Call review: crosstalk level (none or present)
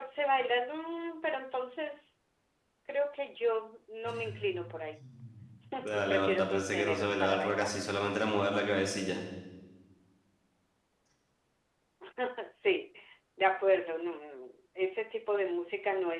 present